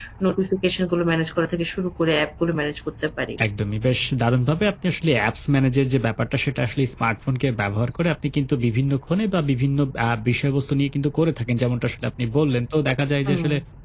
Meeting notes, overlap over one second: none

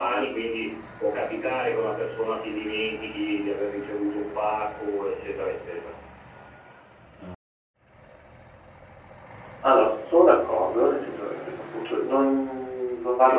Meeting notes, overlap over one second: none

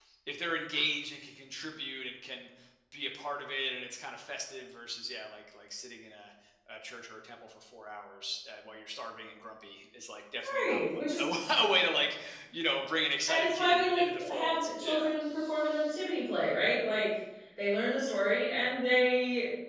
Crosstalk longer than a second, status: present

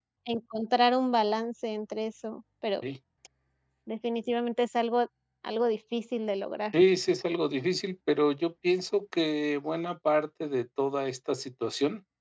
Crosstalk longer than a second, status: none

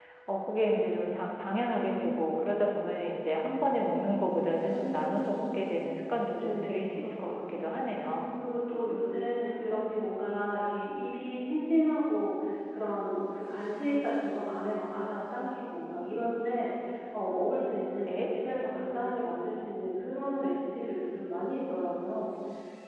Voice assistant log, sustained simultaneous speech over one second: present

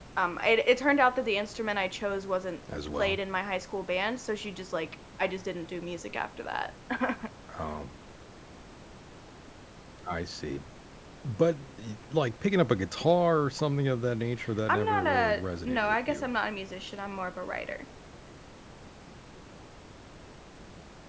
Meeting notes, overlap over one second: present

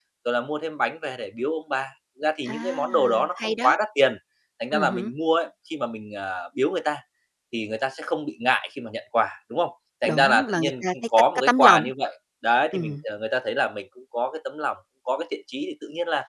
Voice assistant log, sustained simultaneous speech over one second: present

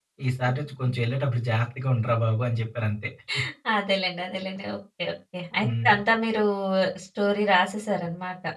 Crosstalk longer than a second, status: none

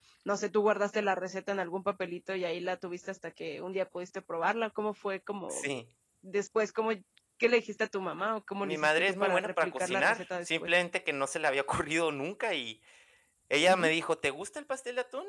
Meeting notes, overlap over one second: present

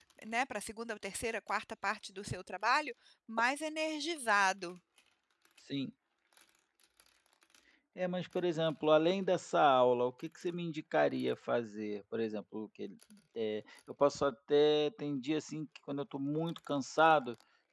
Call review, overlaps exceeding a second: none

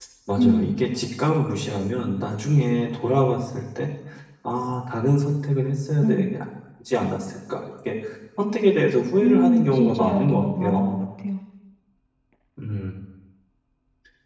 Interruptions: present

